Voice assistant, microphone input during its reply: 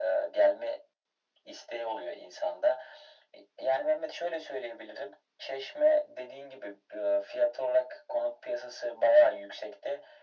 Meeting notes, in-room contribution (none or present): none